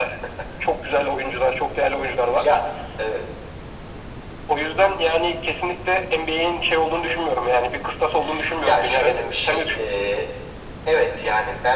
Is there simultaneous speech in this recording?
Yes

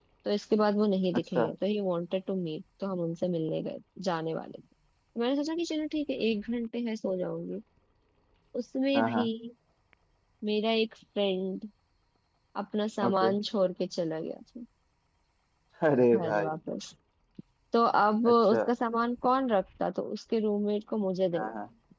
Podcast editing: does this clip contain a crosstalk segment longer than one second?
No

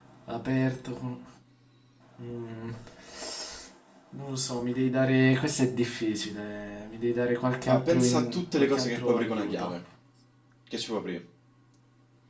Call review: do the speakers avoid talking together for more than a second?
No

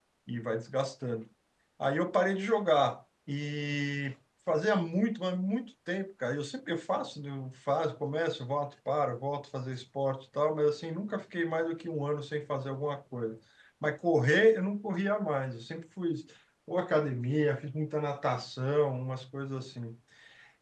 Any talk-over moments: No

